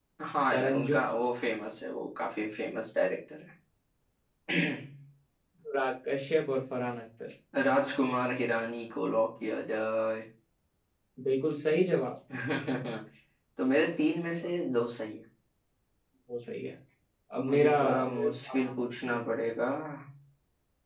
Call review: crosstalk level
present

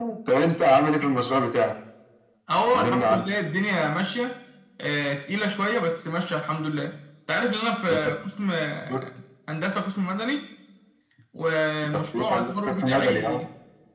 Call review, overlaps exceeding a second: present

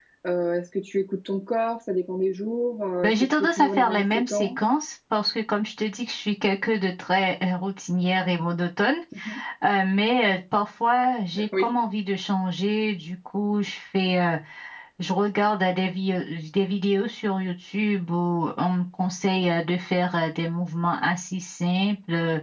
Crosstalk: present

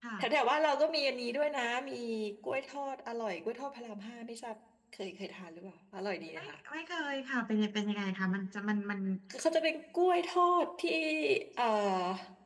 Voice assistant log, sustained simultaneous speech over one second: none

